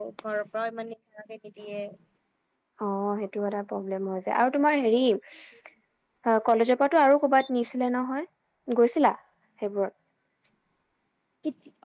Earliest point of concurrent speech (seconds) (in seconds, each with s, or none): none